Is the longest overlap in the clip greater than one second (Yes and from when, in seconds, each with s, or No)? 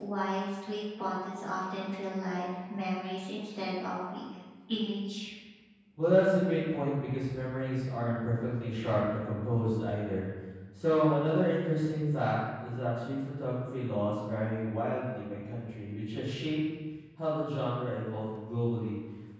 No